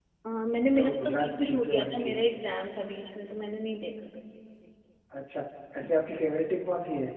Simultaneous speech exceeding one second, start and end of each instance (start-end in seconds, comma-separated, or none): 0.8-2.2